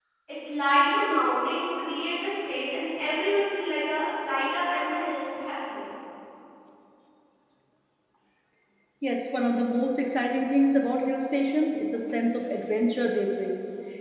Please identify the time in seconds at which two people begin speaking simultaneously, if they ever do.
none

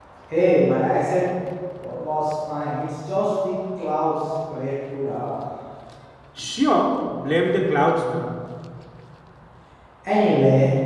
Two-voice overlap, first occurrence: none

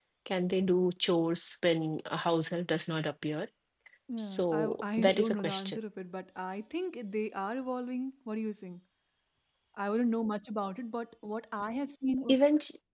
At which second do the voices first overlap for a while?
4.2 s

